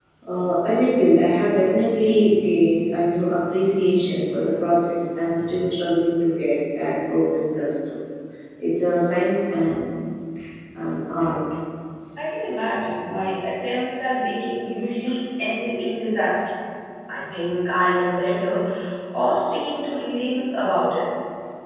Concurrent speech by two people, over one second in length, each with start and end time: none

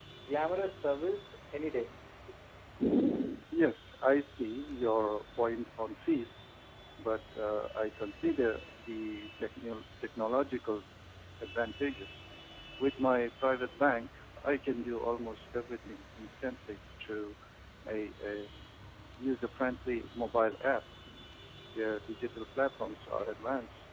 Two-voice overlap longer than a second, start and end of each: none

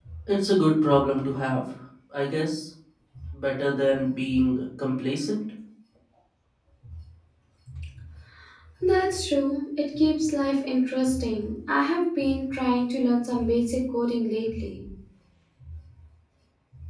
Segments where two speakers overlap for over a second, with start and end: none

